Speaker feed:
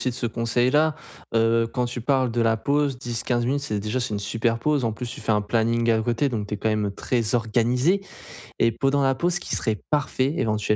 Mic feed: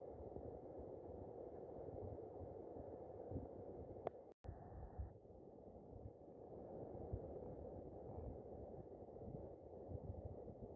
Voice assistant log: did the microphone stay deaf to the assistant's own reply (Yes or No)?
Yes